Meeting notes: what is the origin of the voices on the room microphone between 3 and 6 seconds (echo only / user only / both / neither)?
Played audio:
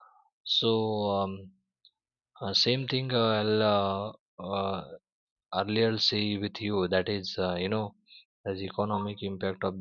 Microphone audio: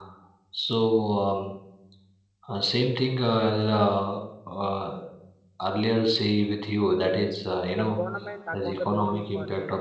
echo only